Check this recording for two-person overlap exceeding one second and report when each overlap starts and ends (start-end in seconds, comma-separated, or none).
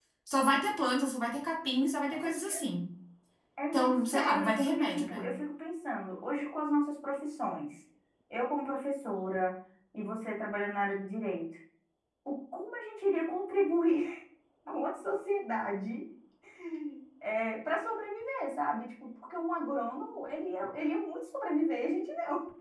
3.7-5.2